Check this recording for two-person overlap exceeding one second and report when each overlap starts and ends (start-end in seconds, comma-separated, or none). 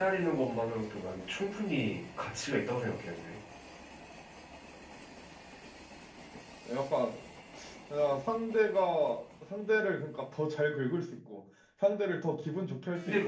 none